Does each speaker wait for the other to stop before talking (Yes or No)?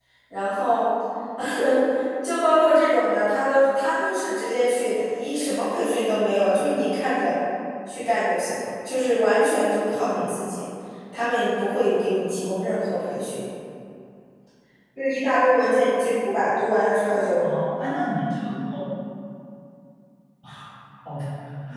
Yes